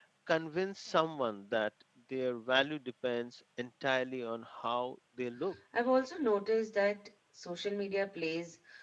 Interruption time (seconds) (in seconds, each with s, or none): none